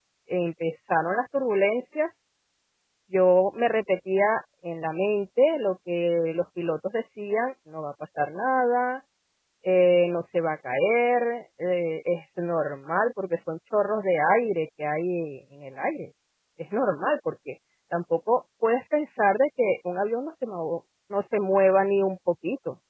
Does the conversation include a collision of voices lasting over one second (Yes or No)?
No